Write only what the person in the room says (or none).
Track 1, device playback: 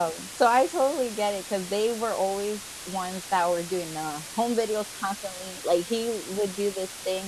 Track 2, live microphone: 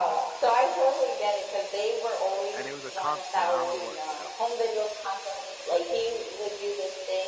And it was a constant, I don't know what that was,